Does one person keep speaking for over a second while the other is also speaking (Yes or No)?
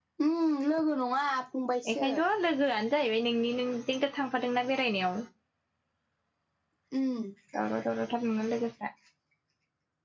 No